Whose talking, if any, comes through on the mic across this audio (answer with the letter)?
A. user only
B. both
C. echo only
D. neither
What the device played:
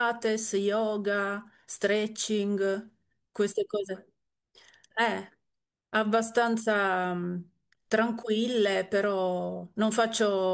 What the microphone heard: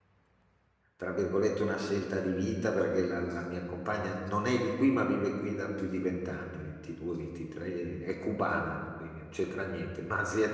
A